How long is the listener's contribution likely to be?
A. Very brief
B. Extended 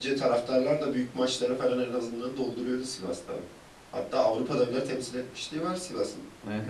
B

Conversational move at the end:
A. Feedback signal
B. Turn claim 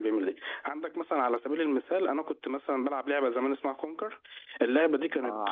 A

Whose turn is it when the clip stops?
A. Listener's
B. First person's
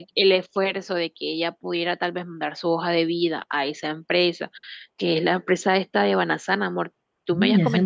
A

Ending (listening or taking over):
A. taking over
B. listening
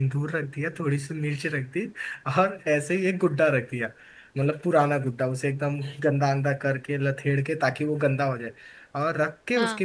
B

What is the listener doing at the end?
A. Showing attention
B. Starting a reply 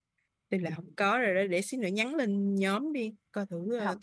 B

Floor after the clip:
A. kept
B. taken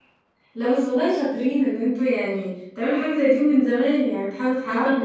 B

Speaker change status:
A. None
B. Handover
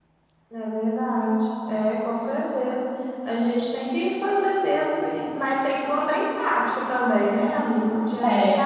A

